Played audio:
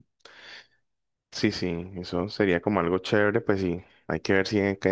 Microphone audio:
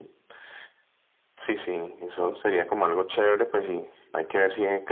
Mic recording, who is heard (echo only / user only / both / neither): echo only